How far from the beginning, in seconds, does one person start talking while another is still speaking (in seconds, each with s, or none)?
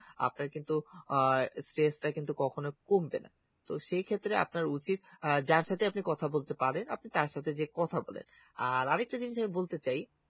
none